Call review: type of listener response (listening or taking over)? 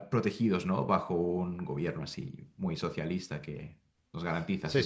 taking over